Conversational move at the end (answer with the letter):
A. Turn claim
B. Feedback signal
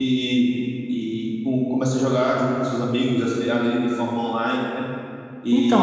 A